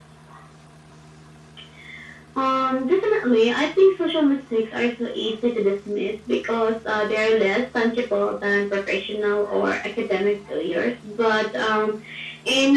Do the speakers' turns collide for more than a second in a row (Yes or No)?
No